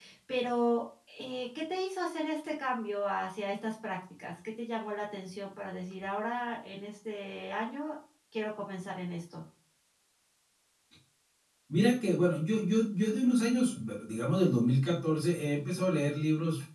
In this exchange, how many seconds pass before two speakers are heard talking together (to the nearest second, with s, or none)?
none